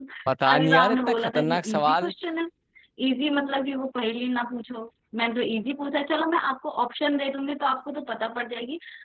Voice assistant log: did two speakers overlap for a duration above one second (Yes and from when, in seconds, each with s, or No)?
Yes, from 0.5 s